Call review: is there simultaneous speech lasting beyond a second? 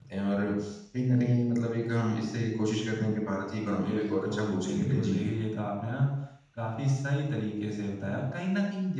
Yes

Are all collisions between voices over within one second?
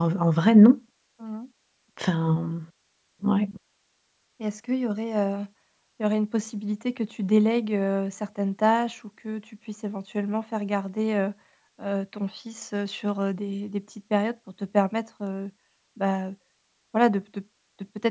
Yes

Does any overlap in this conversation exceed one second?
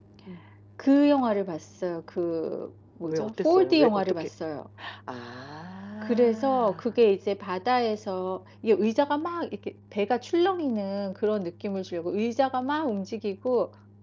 Yes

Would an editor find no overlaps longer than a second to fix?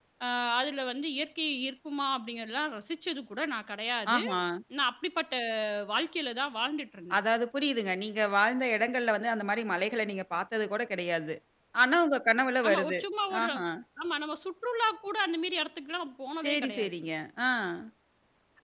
Yes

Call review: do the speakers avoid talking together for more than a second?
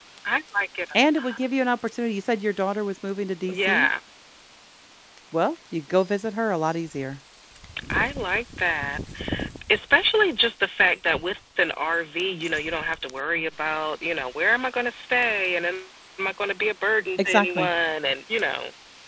Yes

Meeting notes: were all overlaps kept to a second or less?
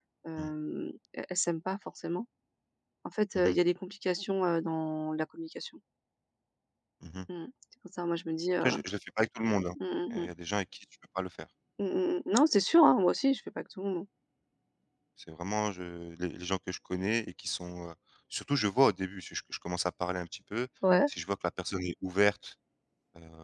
Yes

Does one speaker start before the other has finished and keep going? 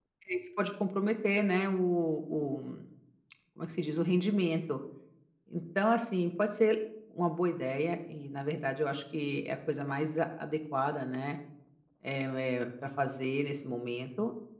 No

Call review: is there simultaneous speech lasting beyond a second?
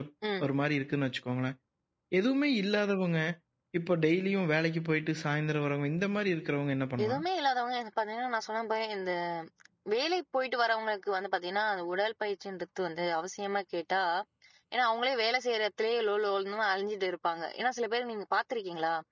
No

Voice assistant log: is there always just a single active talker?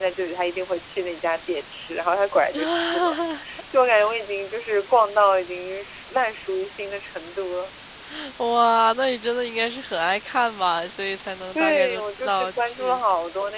No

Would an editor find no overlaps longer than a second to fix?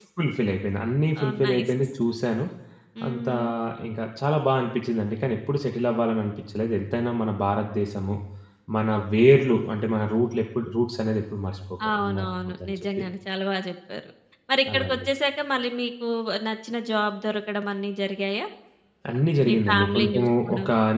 No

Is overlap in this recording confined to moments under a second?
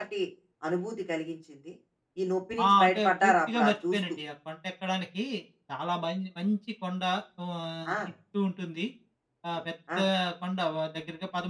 No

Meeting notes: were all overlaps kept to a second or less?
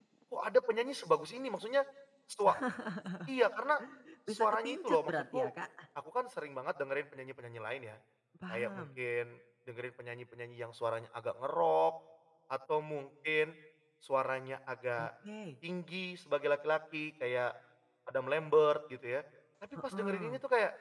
No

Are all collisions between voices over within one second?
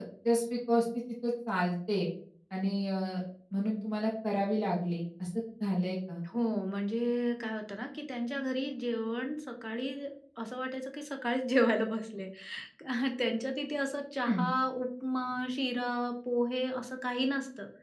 Yes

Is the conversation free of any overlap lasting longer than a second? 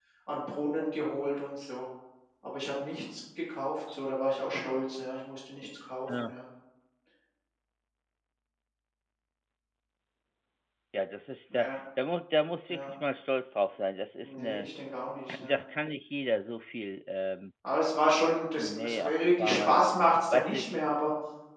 No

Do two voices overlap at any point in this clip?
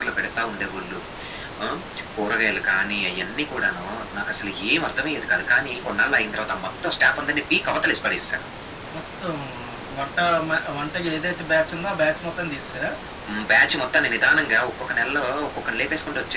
No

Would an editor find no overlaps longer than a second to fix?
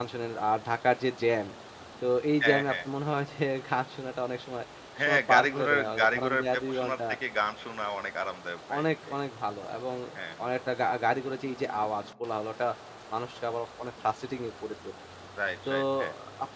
No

